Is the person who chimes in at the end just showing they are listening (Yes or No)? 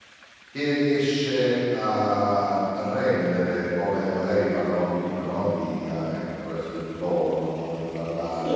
Yes